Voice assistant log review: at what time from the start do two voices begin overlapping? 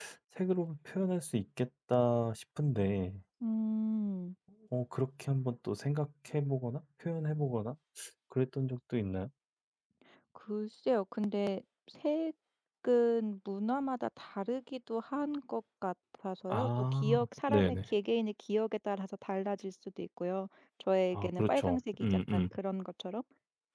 16.5 s

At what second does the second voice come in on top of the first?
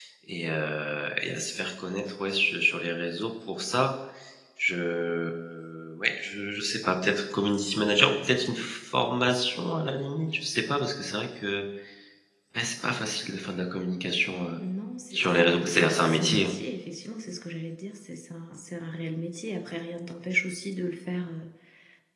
15.1 s

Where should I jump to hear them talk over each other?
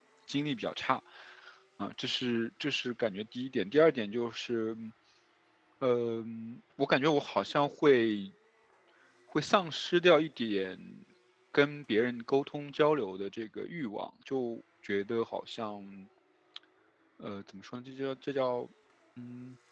none

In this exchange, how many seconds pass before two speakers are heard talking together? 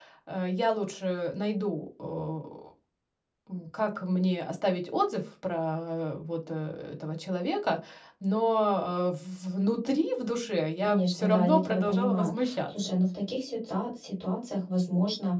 10.8 s

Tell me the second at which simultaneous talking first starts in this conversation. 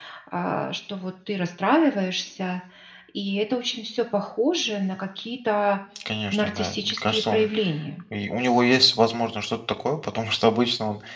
6.3 s

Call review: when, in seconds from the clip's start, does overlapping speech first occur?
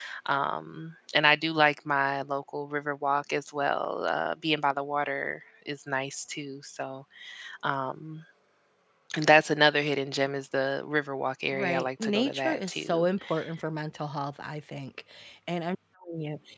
11.5 s

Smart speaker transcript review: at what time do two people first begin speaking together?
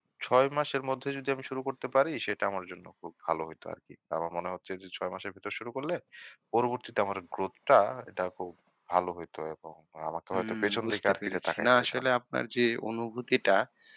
10.3 s

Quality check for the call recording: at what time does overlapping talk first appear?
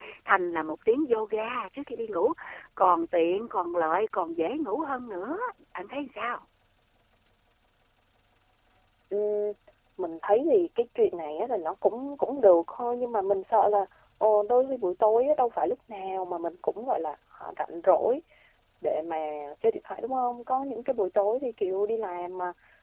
none

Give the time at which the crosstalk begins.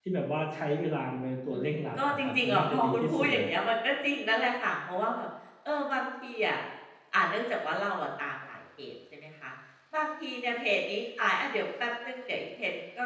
1.5 s

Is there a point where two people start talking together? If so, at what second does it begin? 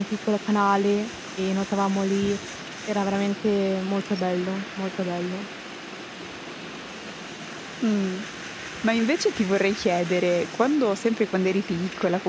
none

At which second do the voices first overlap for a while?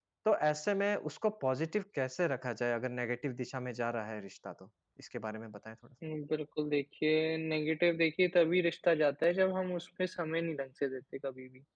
none

